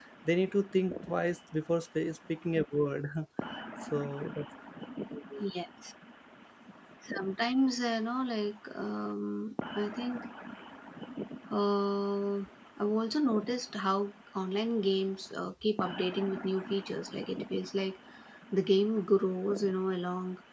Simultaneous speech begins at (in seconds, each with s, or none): none